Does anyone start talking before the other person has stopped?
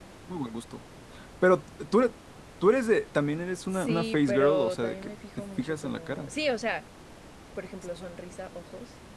Yes, from 3.7 s

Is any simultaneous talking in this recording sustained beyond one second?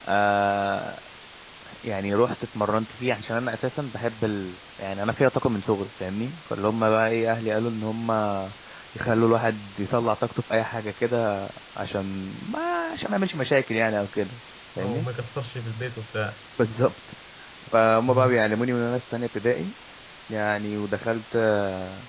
No

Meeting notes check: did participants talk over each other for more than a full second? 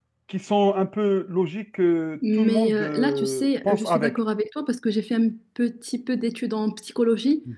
Yes, from 2.2 s

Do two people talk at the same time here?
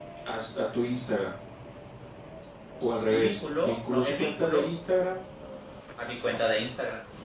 Yes, from 2.9 s

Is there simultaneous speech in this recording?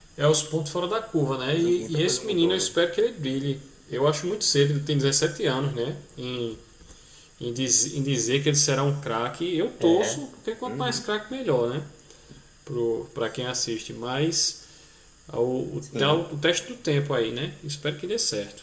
Yes, from 1.6 s

